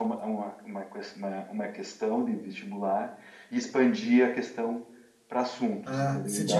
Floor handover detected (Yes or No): Yes